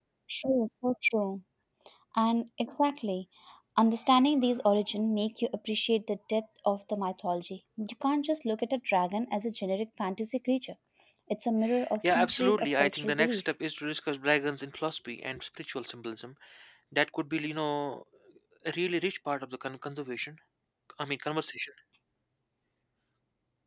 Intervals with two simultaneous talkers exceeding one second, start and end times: 12.0-13.4

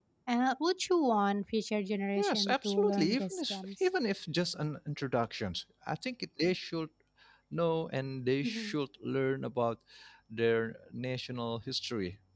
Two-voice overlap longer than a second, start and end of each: 2.1-3.9

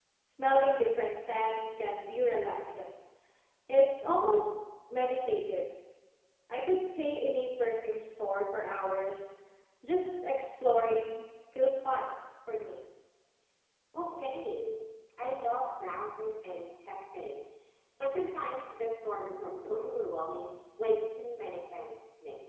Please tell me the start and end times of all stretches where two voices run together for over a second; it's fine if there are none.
none

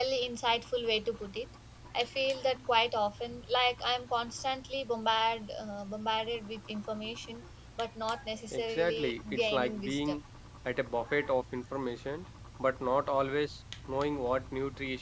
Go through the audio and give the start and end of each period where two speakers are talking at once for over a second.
8.5-10.2

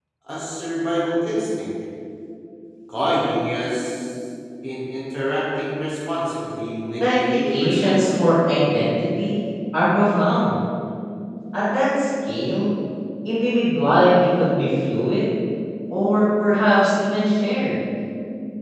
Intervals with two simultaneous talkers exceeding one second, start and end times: 6.9-8.3

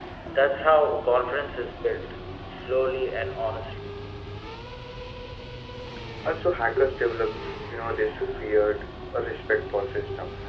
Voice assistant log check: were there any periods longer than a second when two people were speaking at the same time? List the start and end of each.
none

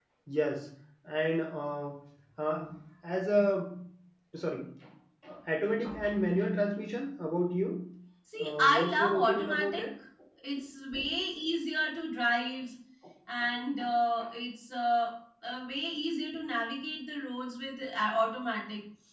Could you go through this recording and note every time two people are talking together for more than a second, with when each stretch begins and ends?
8.4-9.8

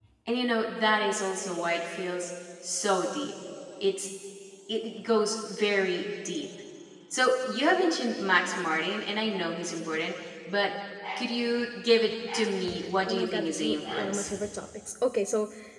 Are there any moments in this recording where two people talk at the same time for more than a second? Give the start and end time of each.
13.0-14.3

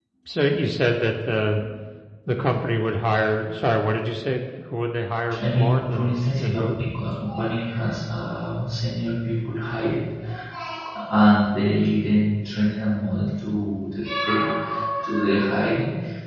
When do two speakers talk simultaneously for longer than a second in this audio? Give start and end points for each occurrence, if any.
5.4-6.6

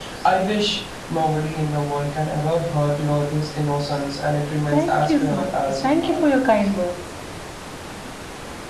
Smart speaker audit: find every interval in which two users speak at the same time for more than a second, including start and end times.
4.7-6.2

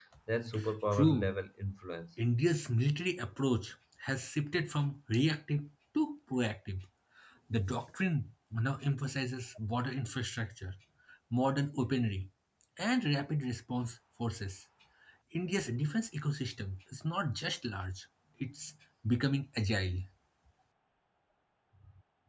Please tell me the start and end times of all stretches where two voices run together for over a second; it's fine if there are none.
none

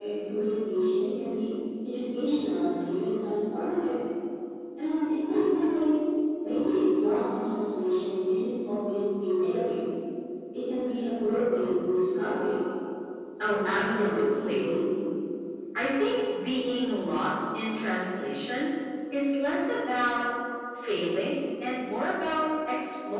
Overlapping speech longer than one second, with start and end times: 13.4-14.6

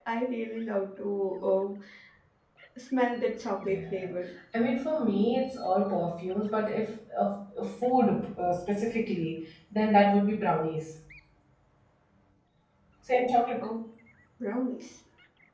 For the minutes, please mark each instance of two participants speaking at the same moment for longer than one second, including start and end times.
none

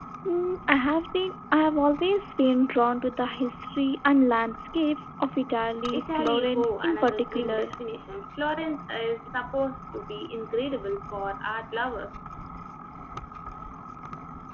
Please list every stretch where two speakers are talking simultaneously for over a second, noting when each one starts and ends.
5.9-7.7

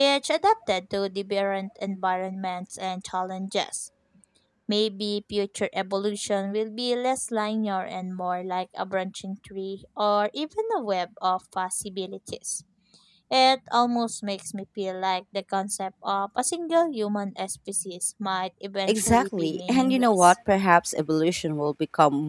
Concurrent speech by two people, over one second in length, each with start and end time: 18.9-20.4

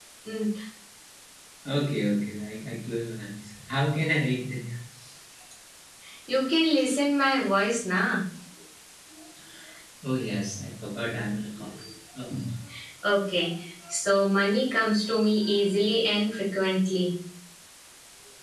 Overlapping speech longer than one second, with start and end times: none

